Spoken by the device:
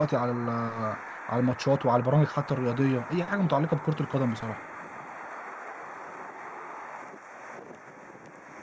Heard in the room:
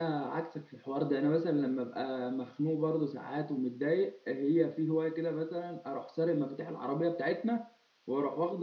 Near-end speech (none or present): present